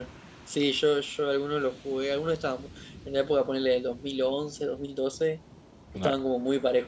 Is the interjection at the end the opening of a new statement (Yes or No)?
No